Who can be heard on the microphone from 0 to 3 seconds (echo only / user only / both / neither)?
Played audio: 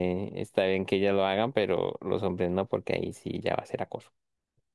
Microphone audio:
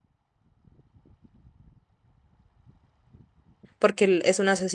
neither